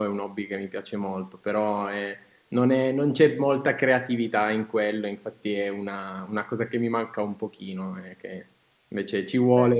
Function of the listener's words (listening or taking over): listening